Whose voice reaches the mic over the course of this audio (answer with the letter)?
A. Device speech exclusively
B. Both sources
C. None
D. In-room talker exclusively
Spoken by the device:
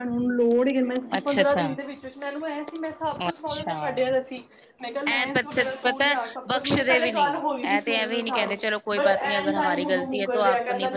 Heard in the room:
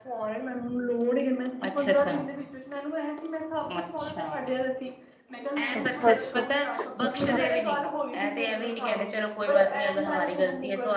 B